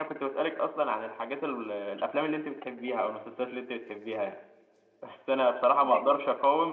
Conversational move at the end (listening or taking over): listening